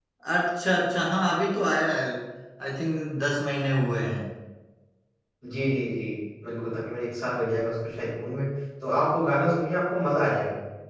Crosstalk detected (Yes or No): No